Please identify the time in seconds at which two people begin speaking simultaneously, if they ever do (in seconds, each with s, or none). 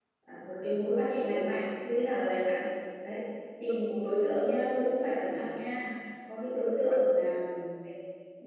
none